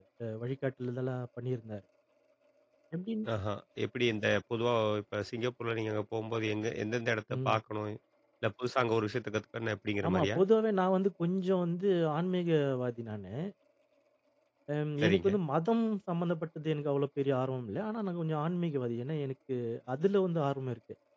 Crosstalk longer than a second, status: none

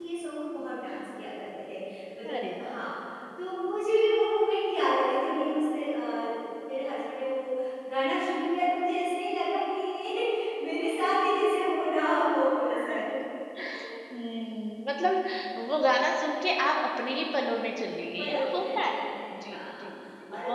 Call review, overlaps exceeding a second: present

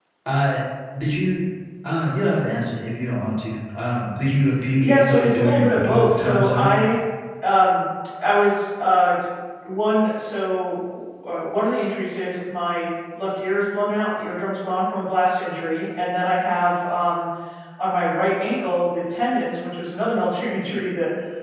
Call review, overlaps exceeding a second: present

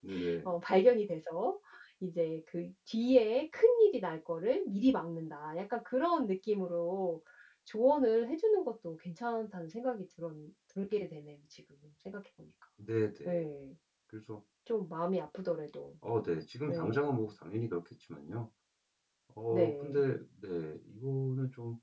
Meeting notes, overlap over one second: none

